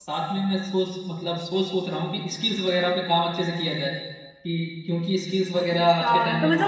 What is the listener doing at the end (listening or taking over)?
taking over